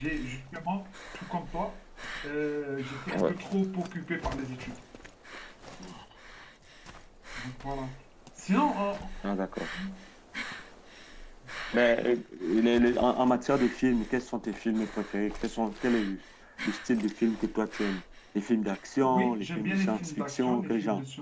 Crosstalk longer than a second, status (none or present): present